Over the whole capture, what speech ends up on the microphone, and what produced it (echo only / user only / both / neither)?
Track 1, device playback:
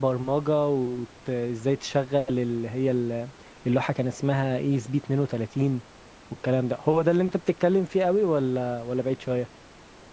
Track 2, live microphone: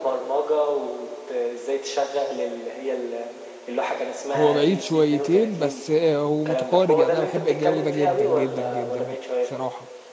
both